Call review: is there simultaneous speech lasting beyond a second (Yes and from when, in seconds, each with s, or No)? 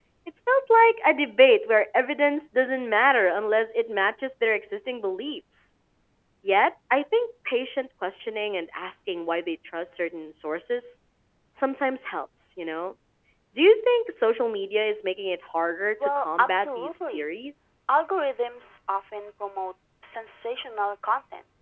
Yes, from 16.0 s